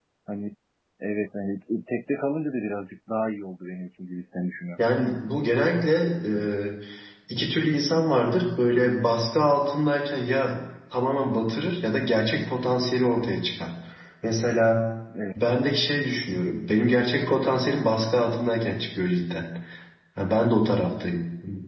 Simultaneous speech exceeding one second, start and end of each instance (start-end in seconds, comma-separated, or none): none